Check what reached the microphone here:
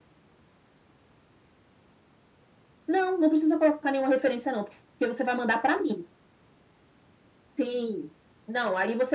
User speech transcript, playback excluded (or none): none